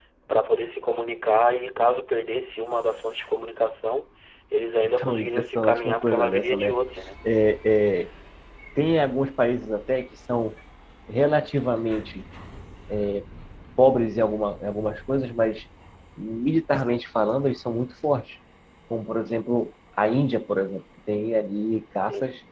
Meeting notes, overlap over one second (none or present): present